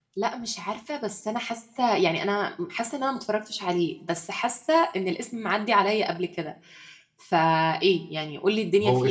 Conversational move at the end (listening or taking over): taking over